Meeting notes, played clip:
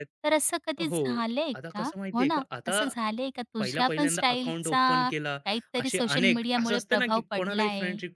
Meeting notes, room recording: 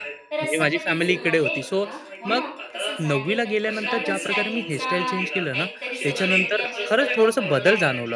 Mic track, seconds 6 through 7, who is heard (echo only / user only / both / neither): both